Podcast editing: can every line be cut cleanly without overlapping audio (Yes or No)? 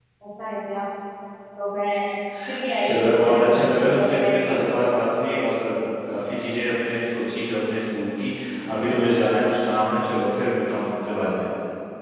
No